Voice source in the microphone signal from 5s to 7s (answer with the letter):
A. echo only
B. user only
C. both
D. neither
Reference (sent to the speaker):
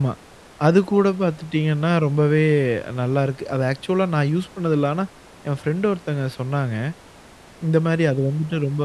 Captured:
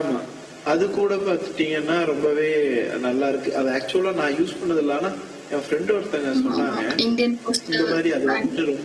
C